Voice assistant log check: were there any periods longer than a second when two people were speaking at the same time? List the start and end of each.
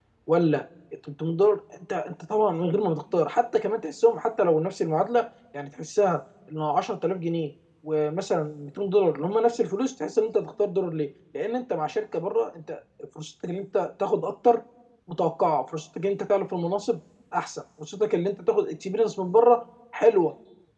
none

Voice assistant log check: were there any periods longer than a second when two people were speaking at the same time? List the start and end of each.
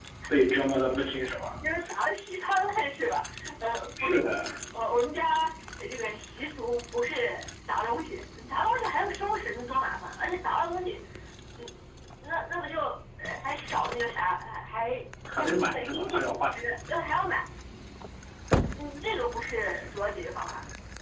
15.4-16.8

